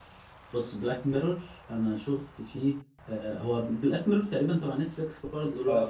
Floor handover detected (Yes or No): Yes